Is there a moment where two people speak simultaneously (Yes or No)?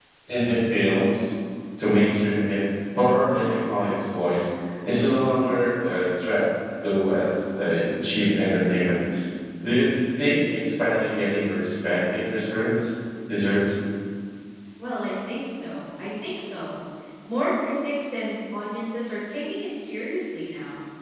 No